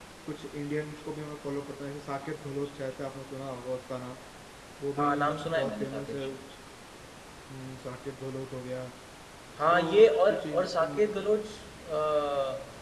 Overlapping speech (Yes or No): Yes